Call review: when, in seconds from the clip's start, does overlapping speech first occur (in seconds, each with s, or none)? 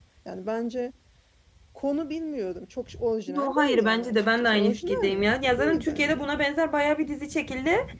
3.3 s